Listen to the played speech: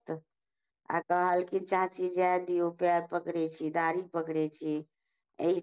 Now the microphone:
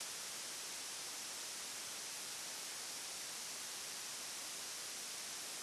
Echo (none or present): none